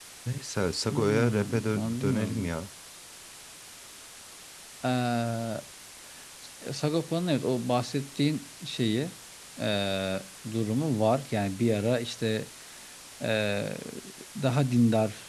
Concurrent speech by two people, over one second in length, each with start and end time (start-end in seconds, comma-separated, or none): 0.9-2.5